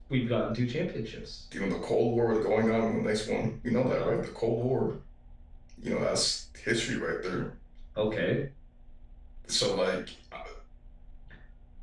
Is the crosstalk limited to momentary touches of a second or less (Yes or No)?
Yes